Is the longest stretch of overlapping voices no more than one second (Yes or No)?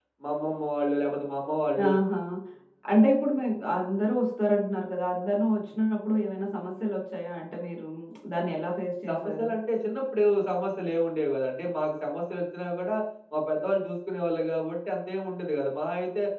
Yes